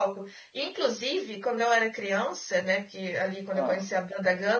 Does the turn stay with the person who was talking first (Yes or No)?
Yes